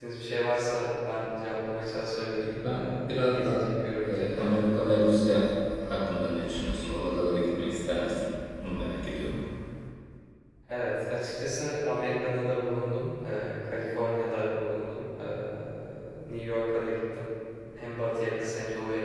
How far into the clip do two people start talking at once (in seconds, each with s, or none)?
2.4 s